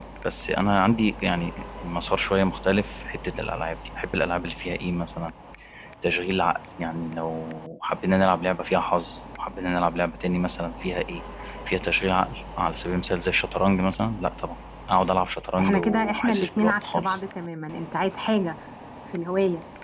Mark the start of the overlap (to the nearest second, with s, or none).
16 s